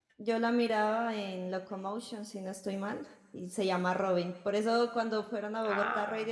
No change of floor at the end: Yes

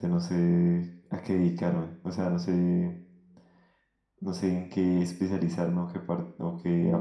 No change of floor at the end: No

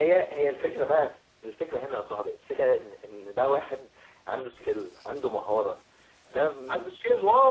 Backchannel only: No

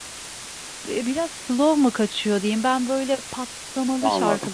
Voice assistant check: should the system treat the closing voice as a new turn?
No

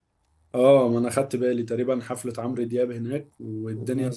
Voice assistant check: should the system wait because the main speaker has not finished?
Yes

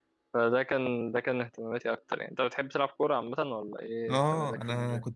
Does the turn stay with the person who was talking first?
No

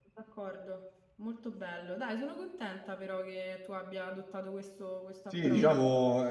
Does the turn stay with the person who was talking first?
No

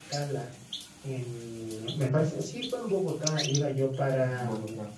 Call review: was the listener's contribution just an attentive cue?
Yes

